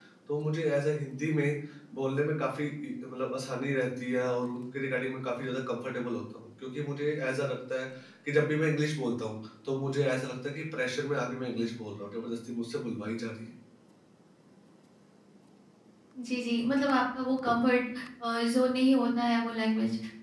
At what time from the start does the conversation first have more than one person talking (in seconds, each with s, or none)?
none